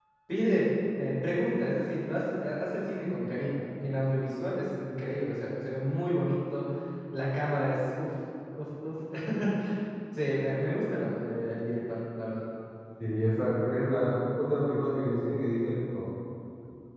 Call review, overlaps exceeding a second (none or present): none